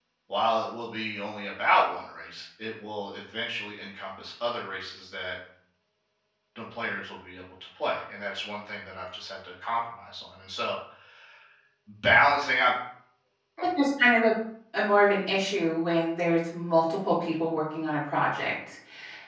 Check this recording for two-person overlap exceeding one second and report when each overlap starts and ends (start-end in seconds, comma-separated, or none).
none